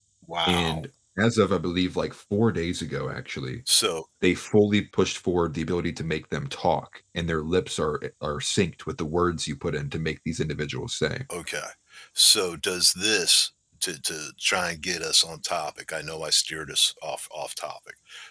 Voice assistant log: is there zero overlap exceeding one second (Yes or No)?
Yes